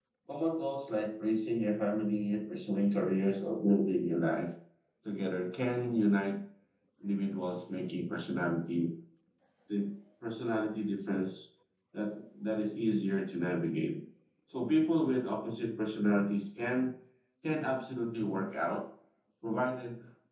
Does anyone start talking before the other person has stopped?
No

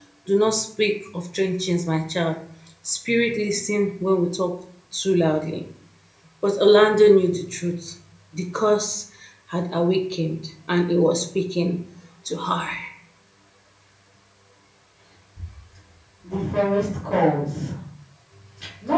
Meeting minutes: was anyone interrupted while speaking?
No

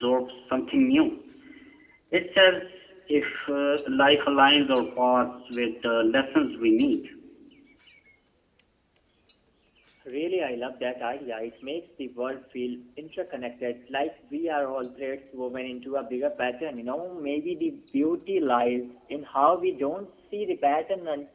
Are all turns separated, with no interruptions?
Yes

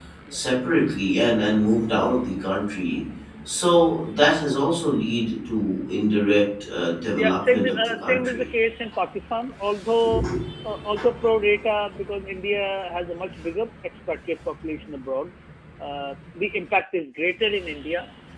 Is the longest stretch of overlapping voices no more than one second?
No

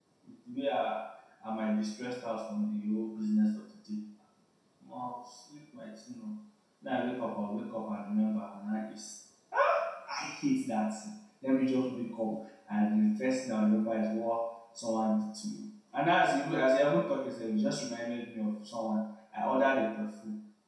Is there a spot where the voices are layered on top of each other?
No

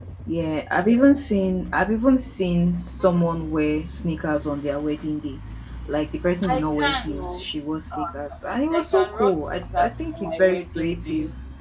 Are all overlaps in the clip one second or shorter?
No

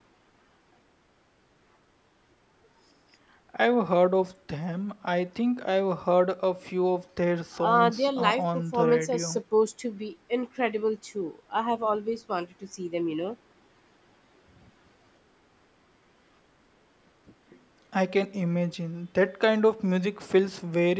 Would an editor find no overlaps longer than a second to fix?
No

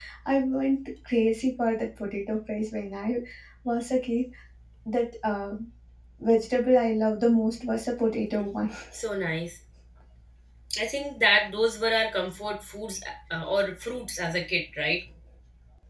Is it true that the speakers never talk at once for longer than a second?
Yes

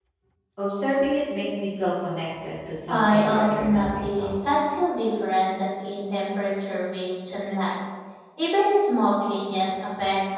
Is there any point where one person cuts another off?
Yes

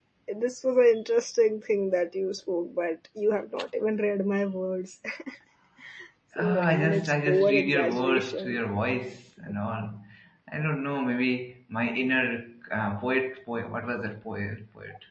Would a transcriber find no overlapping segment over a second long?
No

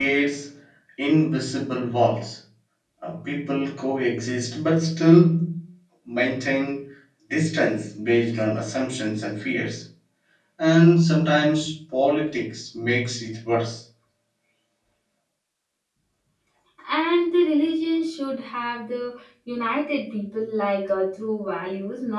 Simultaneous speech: No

